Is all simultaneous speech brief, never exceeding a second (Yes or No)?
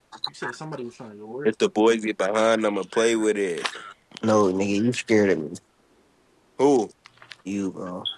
Yes